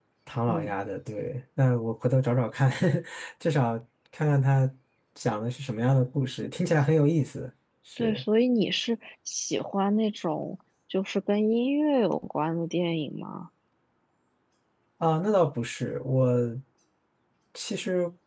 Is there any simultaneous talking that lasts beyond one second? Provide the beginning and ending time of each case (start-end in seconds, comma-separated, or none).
none